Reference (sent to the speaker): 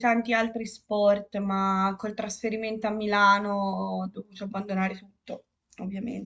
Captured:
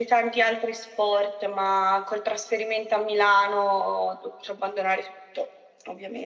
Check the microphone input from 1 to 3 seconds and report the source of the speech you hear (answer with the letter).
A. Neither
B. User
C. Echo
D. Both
C